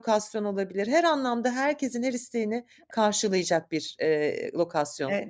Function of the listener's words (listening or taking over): taking over